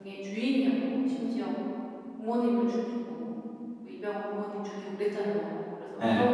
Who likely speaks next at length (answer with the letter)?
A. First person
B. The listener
A